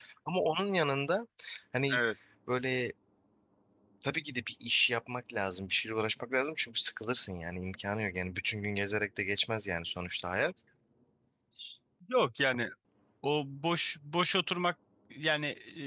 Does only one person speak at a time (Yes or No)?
Yes